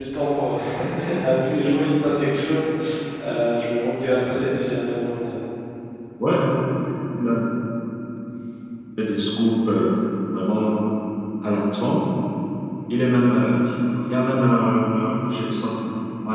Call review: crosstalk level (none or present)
none